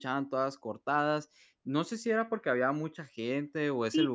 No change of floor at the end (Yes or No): No